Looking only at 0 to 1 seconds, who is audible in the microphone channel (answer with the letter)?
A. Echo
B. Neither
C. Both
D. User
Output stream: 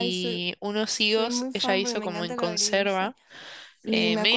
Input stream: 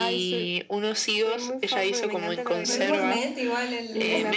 A